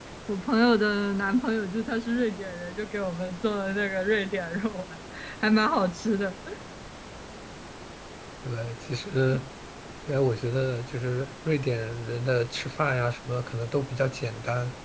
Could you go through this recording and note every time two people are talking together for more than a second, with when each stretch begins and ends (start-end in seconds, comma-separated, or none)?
none